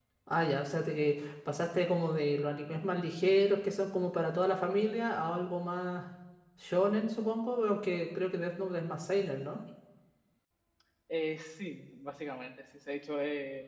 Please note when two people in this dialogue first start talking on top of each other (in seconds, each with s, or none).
none